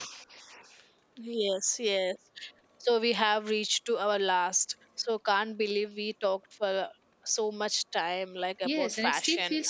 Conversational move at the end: taking over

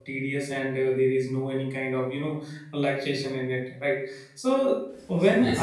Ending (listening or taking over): listening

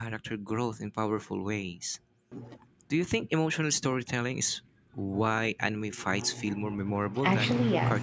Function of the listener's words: taking over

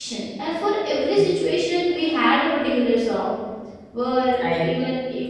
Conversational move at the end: listening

